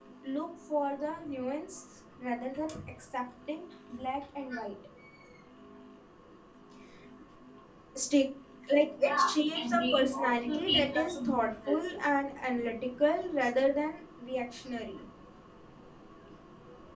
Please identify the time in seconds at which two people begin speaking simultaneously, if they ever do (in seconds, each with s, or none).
9.0 s